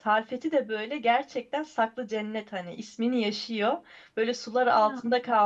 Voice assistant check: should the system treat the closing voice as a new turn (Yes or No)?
No